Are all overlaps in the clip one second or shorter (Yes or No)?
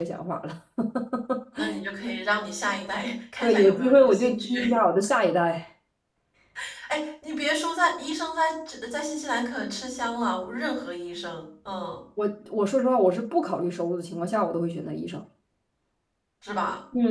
No